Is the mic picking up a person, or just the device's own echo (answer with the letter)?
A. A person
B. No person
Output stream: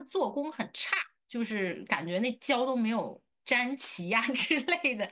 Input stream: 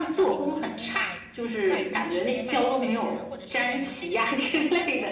A